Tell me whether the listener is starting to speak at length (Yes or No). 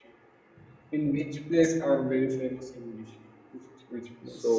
Yes